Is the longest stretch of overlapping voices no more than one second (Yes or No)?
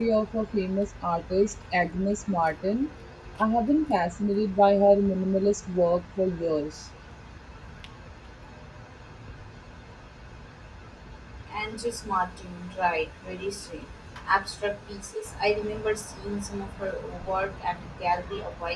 Yes